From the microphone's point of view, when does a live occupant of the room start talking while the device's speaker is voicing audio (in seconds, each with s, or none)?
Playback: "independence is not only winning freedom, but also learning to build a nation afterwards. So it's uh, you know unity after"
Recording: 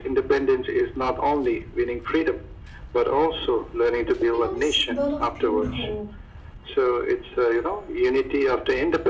4.1 s